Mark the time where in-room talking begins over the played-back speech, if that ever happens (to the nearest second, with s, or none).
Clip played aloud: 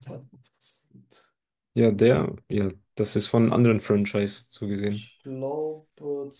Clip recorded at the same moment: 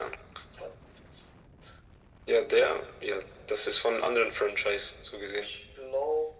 none